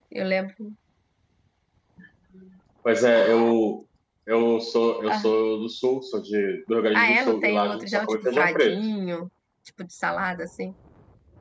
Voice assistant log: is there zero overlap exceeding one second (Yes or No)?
No